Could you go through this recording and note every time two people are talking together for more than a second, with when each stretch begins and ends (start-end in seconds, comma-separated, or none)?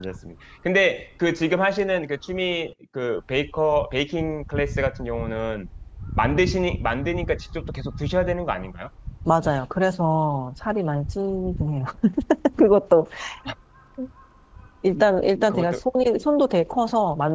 none